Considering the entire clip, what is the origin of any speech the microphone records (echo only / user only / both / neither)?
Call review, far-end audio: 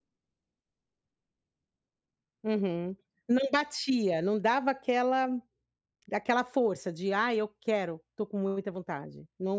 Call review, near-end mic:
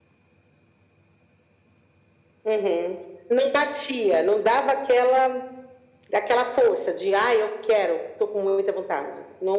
echo only